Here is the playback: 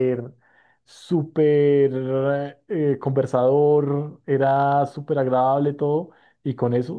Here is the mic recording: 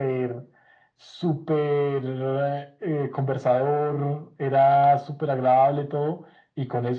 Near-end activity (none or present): none